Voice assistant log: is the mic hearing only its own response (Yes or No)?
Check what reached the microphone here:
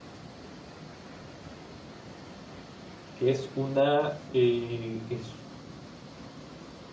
No